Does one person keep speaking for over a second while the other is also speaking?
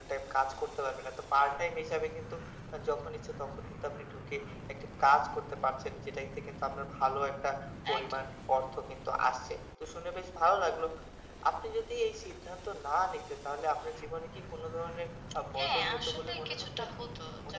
Yes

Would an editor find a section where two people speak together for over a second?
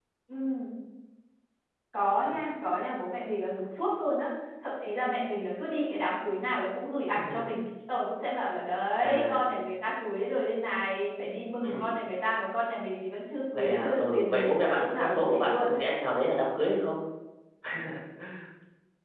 Yes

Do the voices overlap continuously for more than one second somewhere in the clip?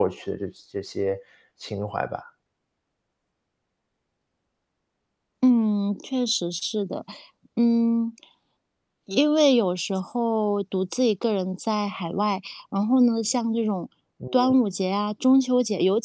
No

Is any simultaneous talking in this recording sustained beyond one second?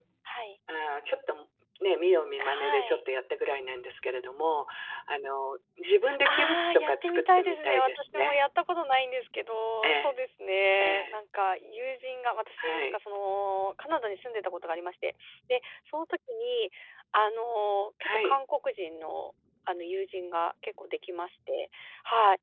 Yes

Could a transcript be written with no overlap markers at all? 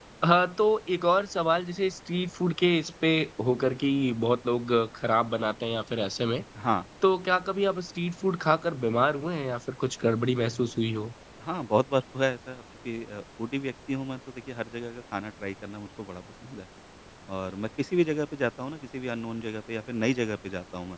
Yes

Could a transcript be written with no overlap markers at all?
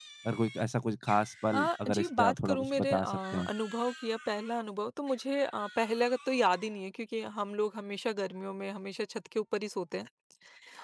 No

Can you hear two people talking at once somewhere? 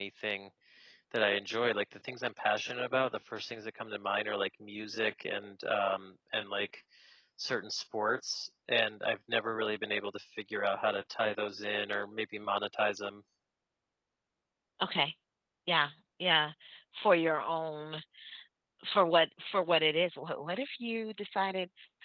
No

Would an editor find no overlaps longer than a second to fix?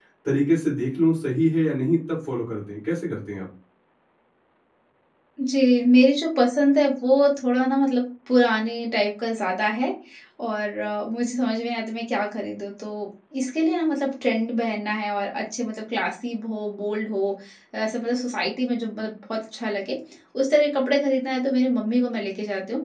Yes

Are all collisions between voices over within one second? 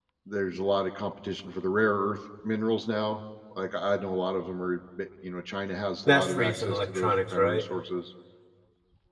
No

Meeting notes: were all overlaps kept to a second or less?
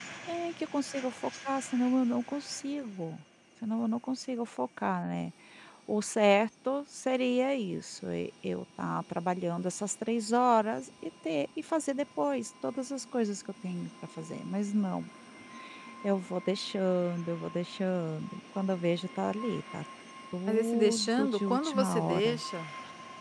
No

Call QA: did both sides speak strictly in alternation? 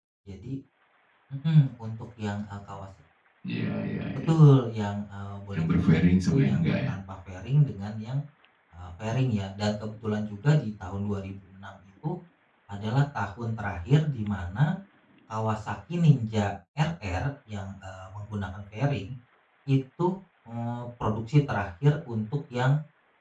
No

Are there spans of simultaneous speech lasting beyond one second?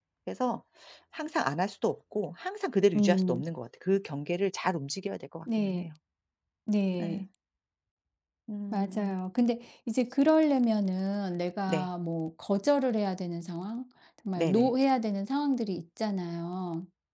No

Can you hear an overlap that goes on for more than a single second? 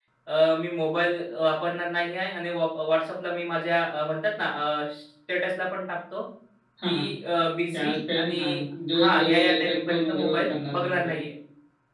Yes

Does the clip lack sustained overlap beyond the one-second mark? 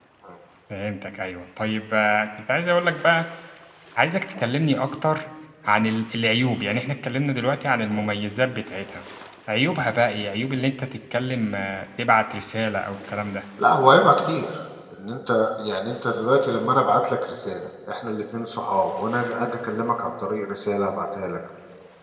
Yes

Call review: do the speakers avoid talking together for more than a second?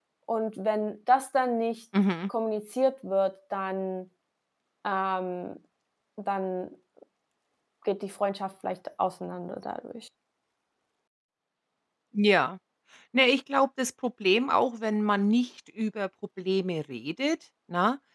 Yes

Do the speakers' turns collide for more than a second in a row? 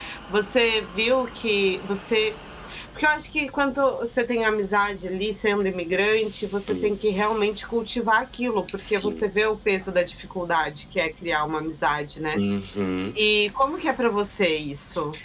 No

